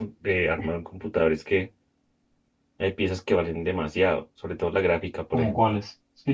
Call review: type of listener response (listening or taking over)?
taking over